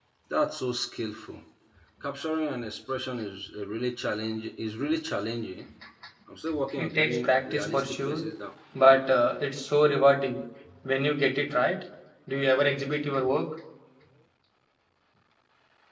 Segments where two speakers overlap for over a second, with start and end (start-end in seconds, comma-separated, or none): 6.8-8.2